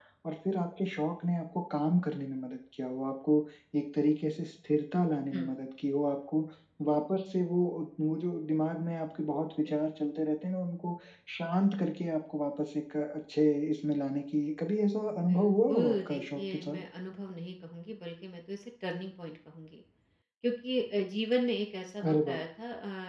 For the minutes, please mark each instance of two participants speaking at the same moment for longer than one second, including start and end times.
15.1-16.8

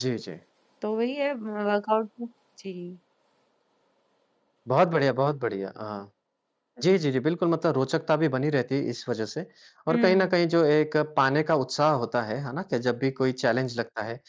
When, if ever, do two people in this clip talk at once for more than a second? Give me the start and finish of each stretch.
none

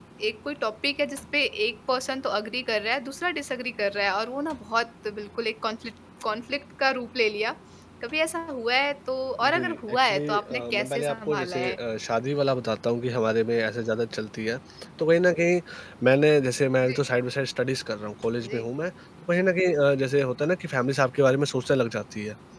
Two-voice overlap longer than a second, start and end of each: 9.5-11.8

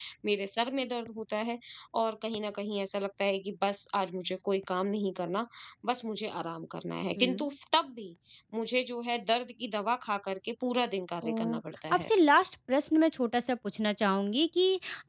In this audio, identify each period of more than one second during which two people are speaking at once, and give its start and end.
none

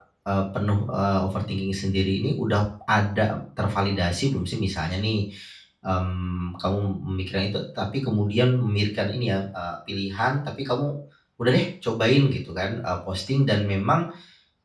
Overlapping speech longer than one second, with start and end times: none

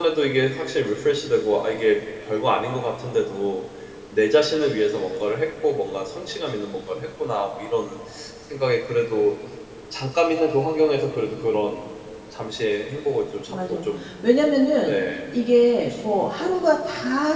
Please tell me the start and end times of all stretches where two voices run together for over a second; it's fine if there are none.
none

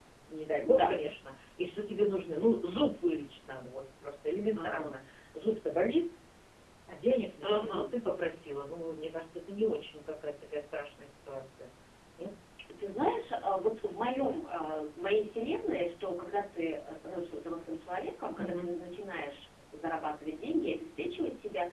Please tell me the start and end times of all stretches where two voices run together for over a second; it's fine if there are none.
none

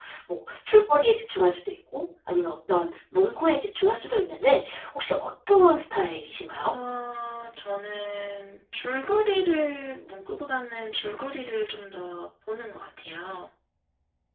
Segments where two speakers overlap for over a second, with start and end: none

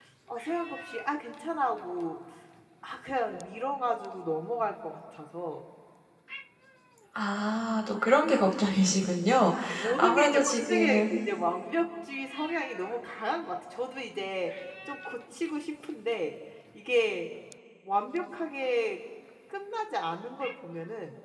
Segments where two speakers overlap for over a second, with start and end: 10.0-11.3

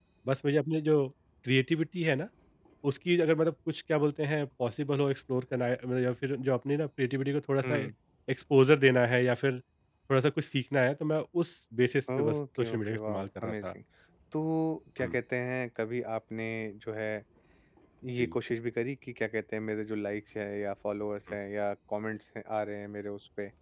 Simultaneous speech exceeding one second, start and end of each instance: 12.2-13.7

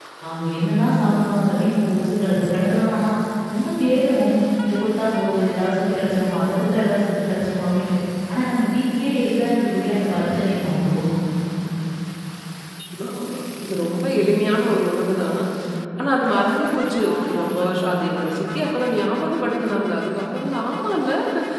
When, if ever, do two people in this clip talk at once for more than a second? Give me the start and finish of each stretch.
none

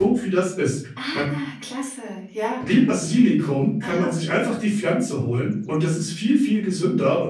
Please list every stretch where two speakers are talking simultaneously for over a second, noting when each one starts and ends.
none

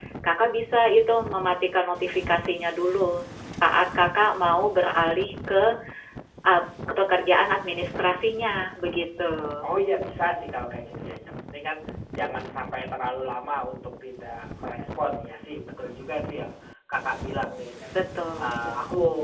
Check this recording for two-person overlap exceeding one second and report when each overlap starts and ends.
none

